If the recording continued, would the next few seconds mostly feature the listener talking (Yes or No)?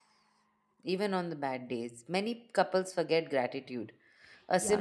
No